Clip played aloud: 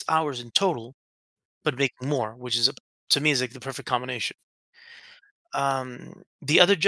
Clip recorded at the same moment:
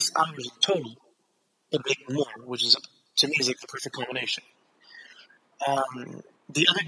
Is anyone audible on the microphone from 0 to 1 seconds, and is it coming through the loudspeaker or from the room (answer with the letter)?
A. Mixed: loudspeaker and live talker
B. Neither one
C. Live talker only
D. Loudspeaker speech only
D